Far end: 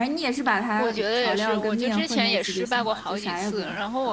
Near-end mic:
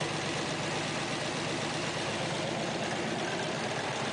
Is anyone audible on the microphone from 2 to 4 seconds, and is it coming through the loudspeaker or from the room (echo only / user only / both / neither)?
neither